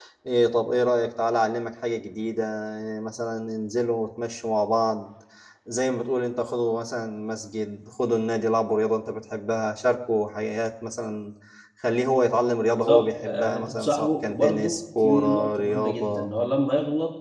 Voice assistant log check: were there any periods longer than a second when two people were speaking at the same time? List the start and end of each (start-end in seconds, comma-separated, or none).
12.7-16.3